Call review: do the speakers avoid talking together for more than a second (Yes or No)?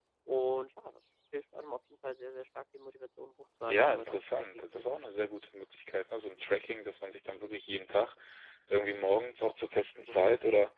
No